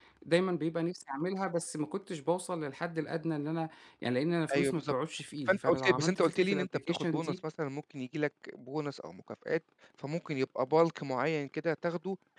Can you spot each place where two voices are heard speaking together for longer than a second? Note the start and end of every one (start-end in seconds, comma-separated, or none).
5.5-7.4